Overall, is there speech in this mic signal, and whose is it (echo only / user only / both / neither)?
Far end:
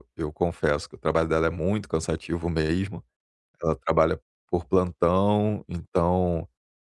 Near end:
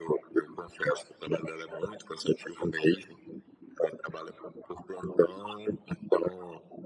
echo only